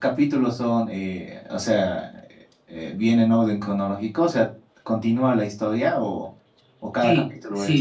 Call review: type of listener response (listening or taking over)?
taking over